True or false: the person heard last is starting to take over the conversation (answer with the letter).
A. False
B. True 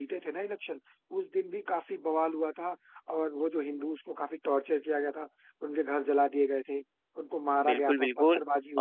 B